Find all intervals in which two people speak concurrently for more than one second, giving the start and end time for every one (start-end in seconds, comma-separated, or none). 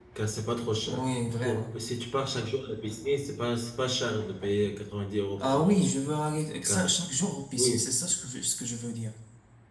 none